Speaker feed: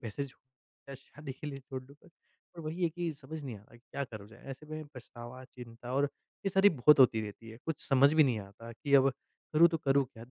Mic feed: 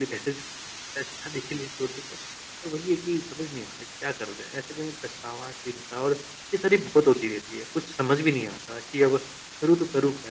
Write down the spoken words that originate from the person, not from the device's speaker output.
none

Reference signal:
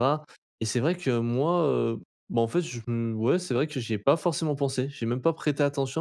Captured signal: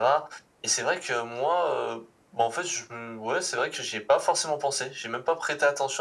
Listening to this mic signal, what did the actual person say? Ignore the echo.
none

